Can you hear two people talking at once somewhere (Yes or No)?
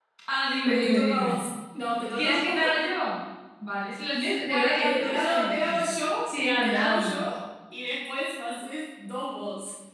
Yes